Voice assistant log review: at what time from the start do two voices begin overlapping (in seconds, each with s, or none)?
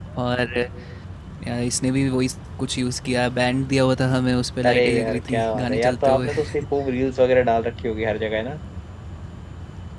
4.6 s